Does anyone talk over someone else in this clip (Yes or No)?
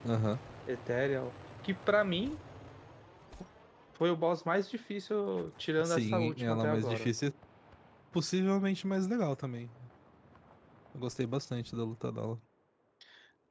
Yes